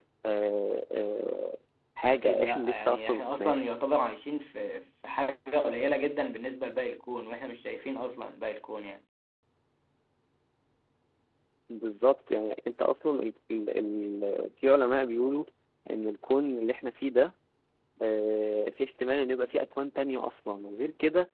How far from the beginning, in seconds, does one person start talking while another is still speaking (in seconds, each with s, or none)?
2.1 s